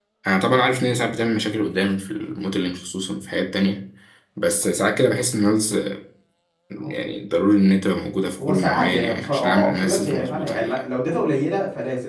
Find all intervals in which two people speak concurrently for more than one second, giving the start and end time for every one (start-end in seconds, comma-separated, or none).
8.5-10.8